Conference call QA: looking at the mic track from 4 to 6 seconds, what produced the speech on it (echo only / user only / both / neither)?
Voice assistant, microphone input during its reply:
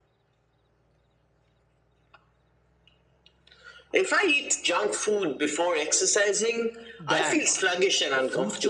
echo only